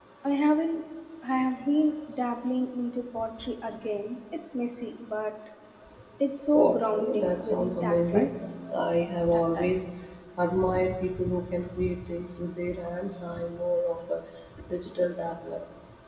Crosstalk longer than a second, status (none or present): present